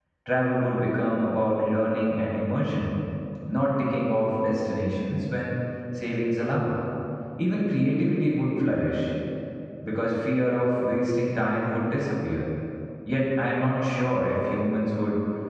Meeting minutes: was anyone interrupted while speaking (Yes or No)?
No